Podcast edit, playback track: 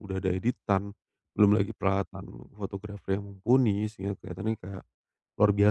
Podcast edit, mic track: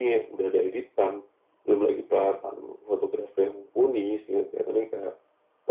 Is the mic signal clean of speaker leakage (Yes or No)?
No